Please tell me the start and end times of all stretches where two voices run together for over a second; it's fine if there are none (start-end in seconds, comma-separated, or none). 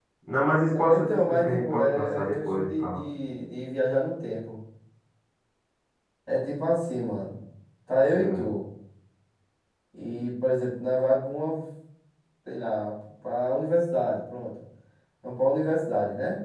0.7-3.0